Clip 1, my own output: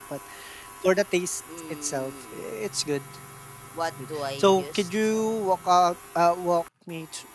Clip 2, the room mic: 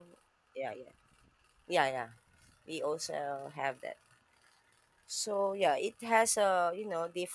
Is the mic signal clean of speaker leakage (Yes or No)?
Yes